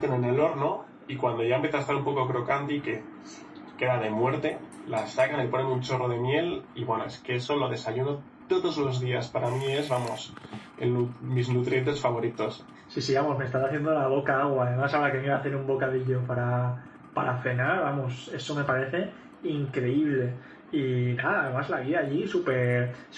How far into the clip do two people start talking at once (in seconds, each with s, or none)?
none